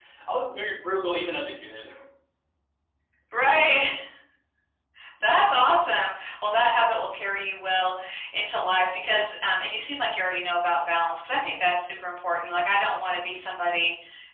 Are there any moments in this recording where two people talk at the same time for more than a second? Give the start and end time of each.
none

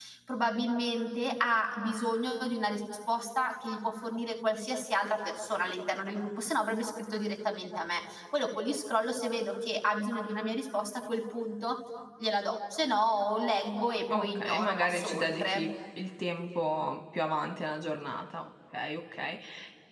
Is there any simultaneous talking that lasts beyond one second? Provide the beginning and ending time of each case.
14.1-15.7

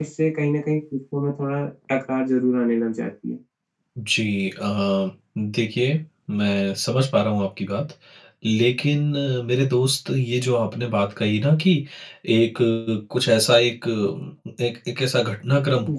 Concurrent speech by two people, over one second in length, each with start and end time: none

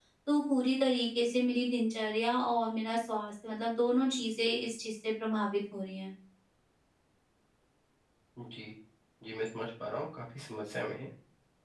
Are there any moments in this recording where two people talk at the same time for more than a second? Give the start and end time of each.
none

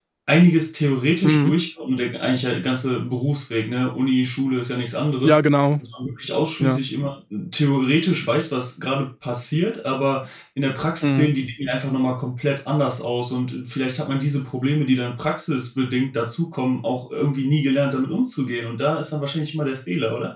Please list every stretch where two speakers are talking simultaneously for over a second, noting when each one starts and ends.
none

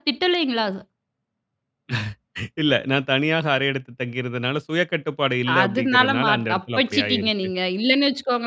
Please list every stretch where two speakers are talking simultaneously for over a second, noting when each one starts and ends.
5.6-7.5

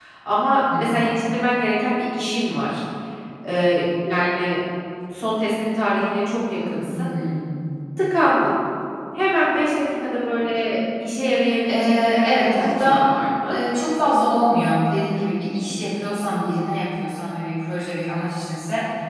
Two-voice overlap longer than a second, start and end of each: 11.7-13.0

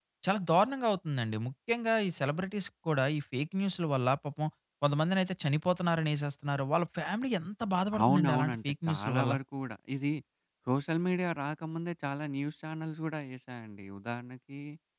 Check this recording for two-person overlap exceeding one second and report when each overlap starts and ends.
8.0-9.3

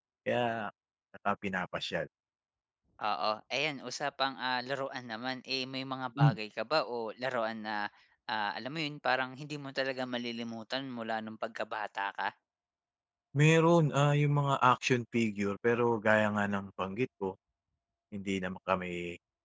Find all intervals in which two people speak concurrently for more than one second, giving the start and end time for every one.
none

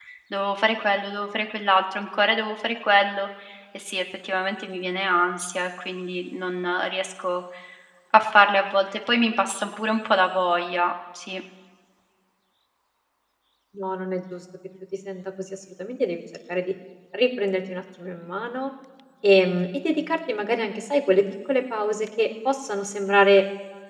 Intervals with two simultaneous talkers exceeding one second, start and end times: none

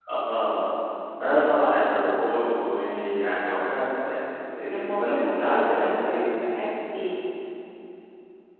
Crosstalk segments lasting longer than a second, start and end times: 4.7-6.2

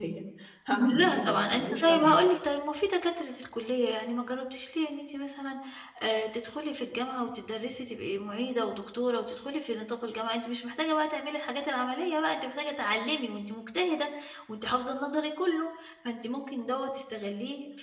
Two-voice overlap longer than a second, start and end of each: 0.9-2.1

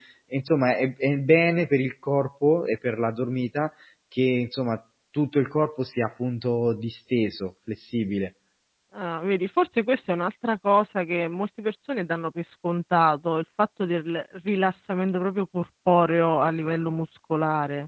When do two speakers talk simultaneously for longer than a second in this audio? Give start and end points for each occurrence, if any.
none

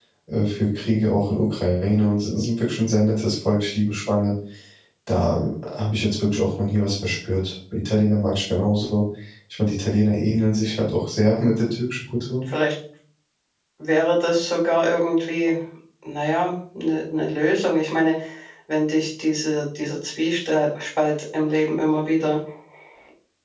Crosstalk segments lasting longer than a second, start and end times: none

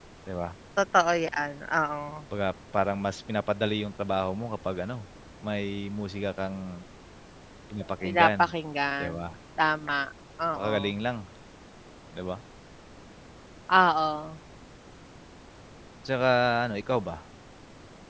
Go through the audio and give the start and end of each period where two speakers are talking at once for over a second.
none

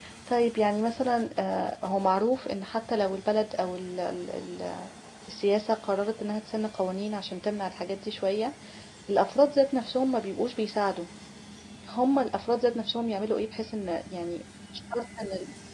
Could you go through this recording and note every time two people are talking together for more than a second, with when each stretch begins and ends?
none

